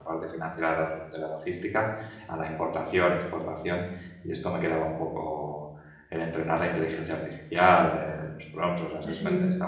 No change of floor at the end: Yes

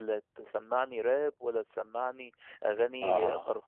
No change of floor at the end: Yes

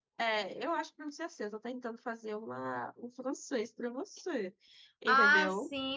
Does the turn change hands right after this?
Yes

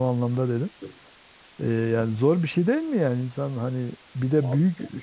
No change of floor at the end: Yes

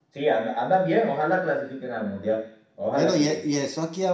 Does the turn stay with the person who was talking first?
No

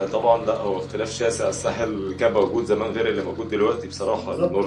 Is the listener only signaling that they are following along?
No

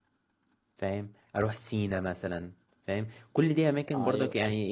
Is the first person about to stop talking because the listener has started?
No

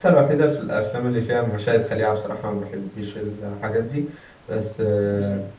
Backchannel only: Yes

